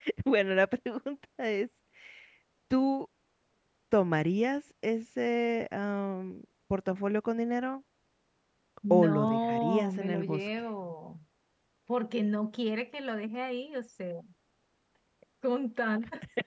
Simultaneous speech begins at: 9 s

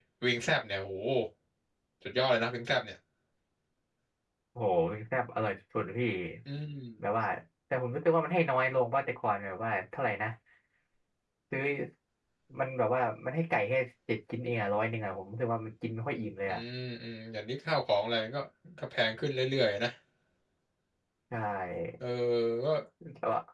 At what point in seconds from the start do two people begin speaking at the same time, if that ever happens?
none

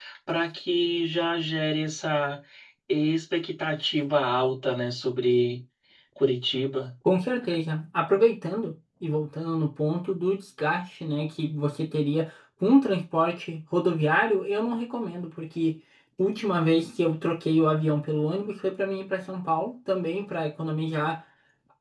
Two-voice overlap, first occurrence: none

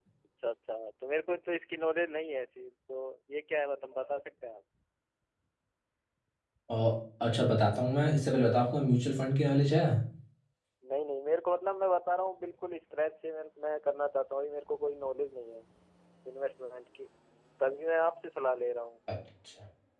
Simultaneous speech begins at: none

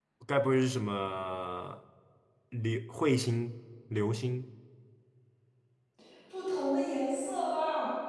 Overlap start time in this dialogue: none

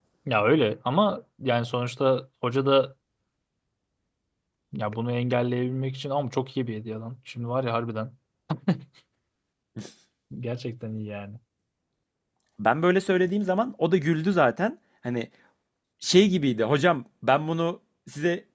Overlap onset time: none

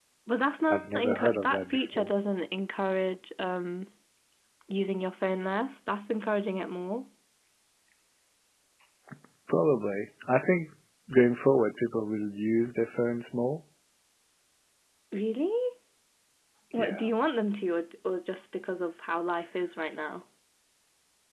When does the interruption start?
1 s

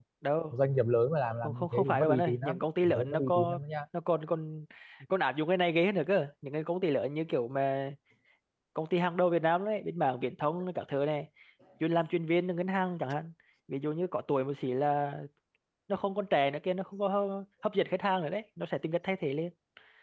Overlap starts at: 1 s

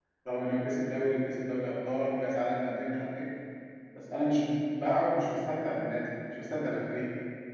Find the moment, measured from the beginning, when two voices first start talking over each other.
none

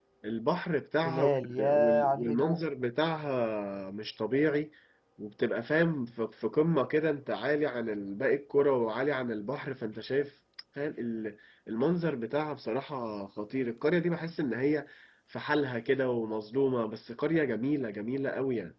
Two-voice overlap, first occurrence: 1 s

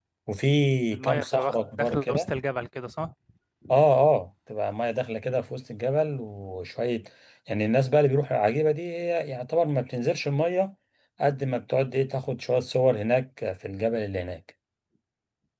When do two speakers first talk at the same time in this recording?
1 s

